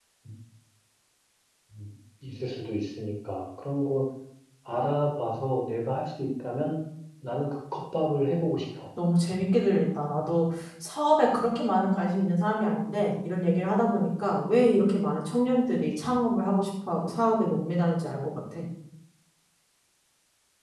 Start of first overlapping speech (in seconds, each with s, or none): none